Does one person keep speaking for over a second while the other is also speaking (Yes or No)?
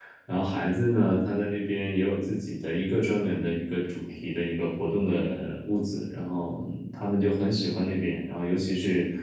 No